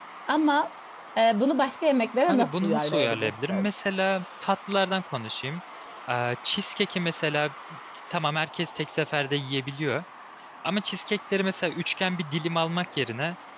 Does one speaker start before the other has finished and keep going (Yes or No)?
Yes